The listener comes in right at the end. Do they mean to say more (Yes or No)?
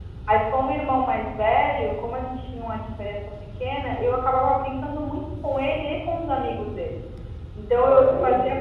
No